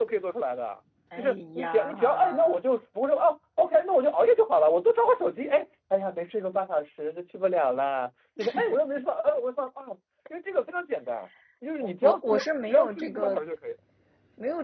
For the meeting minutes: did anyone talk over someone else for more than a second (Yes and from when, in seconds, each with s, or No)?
Yes, from 1.2 s